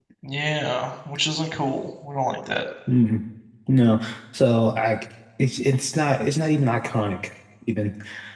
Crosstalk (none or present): none